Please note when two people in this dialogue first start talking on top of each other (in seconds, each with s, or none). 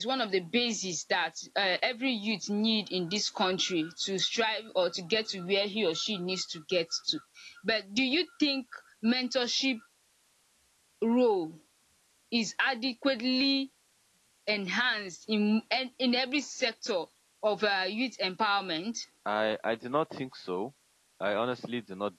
none